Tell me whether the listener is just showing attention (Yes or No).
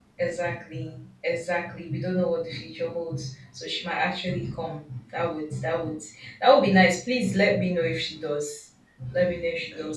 Yes